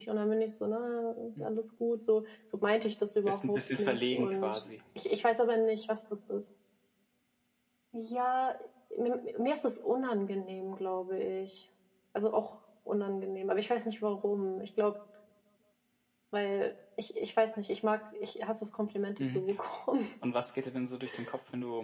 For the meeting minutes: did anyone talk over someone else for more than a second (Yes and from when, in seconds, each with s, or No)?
Yes, from 3.2 s